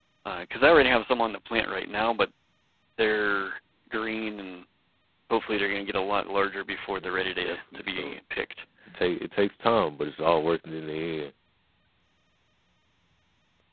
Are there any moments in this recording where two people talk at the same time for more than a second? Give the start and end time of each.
6.9-8.2

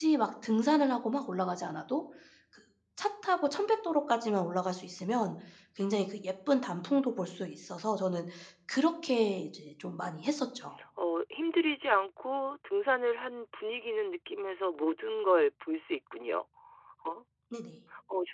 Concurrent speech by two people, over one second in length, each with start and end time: none

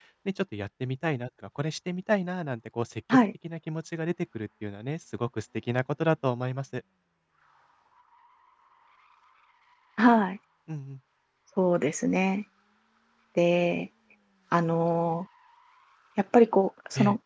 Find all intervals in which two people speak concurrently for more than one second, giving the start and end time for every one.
none

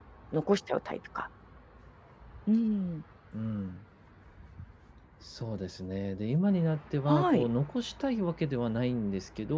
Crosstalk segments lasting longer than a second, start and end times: none

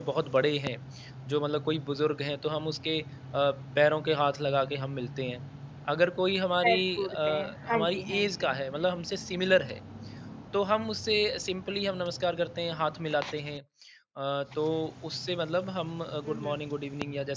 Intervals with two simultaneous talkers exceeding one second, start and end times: 6.6-8.5

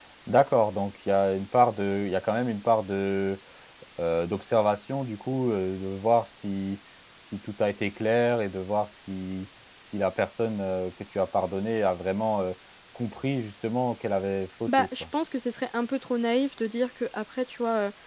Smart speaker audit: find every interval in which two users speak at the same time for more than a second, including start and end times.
none

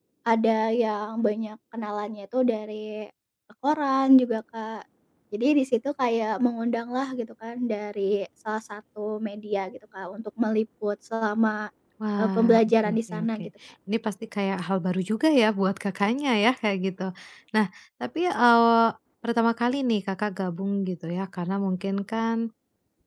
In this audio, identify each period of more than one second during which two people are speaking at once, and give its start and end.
12.2-13.4

